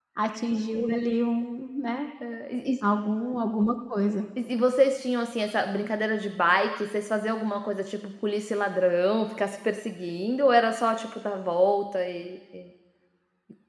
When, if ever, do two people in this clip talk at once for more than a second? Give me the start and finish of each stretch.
none

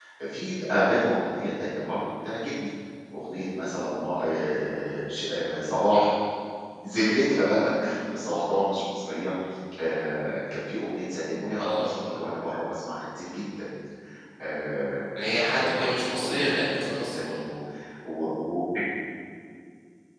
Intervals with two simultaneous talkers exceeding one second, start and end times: 15.2-17.4

